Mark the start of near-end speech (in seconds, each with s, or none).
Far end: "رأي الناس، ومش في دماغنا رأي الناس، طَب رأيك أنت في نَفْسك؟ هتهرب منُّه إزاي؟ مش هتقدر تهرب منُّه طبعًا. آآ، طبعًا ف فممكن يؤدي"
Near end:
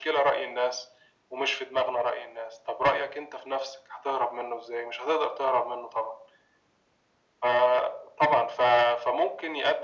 none